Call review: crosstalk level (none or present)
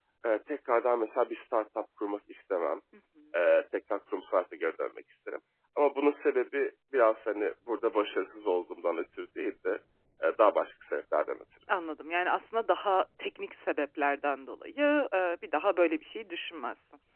none